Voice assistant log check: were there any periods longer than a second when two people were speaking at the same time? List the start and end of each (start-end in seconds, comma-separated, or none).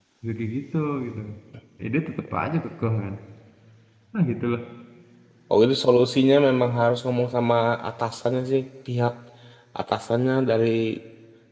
none